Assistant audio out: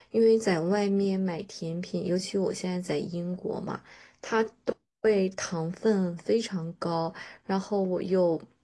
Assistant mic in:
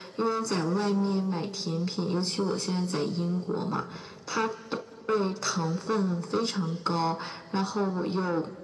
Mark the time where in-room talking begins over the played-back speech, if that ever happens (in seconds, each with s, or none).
none